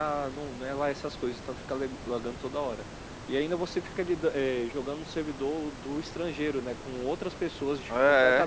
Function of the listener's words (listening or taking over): listening